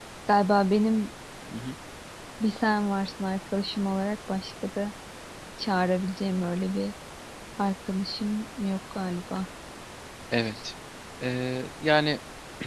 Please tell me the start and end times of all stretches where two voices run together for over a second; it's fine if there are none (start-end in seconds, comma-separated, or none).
none